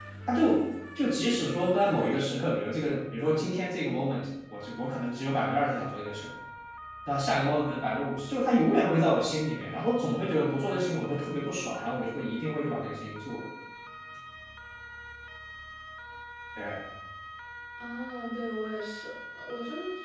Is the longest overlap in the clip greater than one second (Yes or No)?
No